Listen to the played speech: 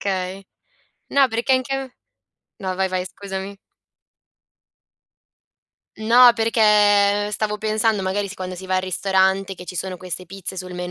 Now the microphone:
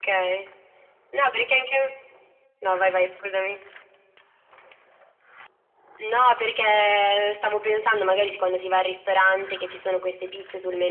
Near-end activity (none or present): none